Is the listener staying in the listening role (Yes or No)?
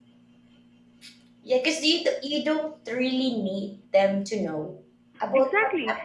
No